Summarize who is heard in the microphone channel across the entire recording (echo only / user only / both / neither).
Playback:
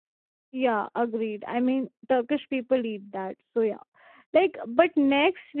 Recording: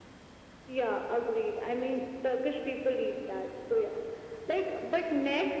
echo only